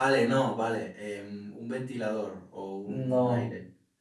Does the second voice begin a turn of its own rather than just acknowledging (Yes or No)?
Yes